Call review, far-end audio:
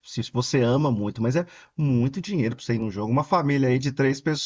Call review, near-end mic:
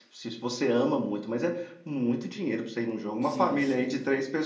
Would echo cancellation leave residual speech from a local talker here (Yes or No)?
Yes